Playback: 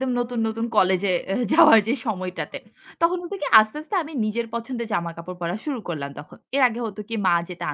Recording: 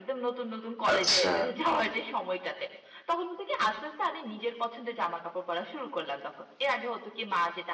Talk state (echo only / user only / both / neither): both